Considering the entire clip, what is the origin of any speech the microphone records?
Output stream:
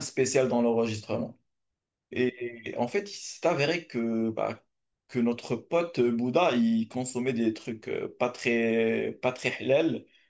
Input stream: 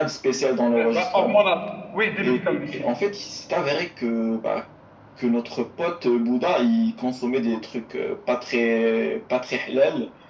both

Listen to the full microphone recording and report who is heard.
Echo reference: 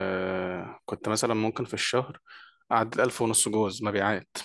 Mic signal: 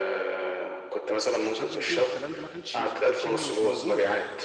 both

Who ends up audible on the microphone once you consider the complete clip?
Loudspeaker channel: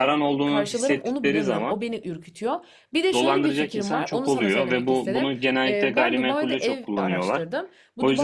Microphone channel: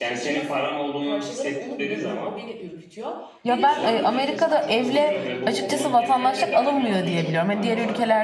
both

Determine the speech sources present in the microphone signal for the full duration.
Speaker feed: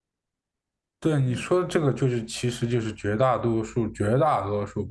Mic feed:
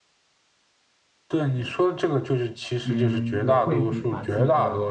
both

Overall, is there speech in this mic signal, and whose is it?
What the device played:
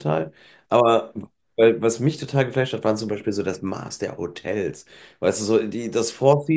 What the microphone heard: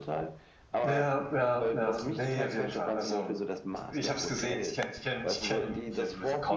both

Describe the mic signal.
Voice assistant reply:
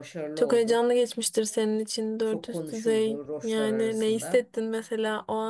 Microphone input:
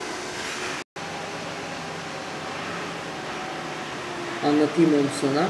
user only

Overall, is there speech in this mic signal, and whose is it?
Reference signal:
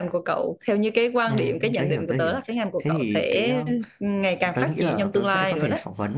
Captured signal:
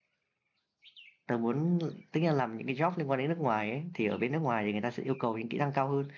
user only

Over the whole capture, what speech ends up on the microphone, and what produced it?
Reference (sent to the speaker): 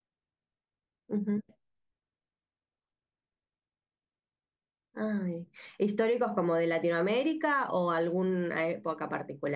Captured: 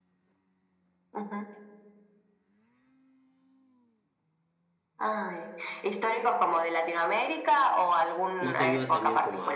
both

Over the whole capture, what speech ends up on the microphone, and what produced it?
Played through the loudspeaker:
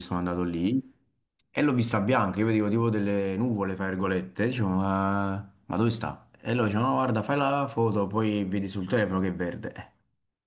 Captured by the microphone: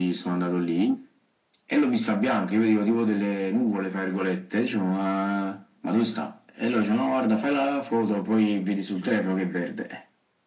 echo only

